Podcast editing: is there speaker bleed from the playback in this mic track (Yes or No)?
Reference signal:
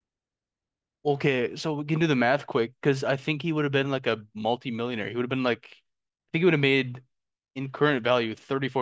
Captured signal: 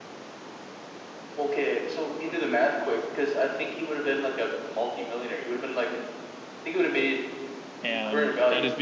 Yes